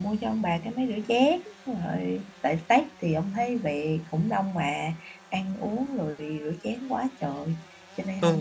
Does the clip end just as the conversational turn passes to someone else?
Yes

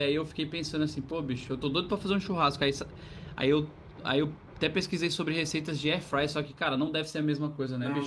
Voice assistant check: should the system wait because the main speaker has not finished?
No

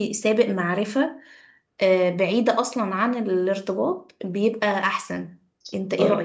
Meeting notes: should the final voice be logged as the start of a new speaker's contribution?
Yes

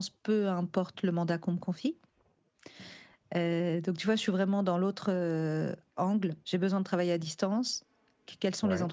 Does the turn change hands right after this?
No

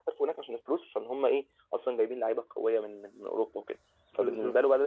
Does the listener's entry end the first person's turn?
No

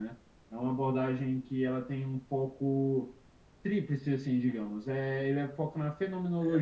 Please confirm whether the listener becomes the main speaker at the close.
Yes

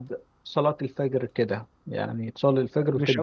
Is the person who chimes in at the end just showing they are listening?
No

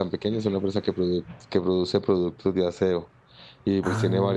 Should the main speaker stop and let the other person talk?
No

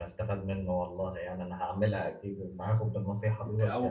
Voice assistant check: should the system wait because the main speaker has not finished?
No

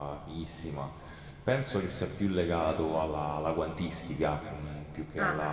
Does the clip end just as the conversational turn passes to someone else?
No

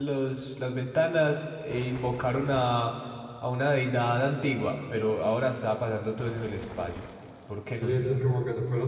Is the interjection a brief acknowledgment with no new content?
No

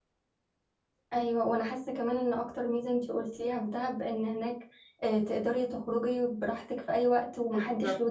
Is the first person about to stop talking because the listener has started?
Yes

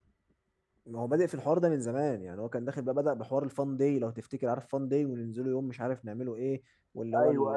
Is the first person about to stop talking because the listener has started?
No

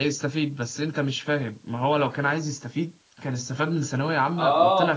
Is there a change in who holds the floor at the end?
Yes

